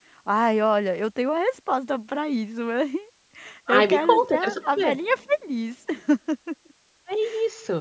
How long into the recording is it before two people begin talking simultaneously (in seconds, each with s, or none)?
3.7 s